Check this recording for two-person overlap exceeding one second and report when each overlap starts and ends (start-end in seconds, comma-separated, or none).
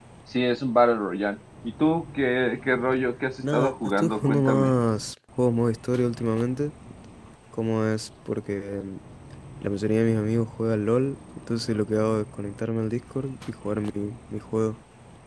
3.4-4.7